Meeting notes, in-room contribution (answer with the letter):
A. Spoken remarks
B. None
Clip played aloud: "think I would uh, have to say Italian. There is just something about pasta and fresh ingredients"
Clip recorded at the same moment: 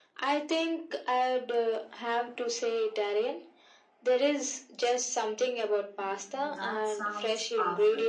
A